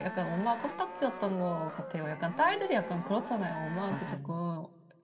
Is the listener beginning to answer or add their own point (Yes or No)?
No